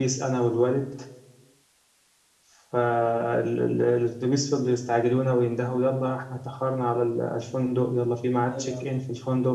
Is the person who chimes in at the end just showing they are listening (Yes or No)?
Yes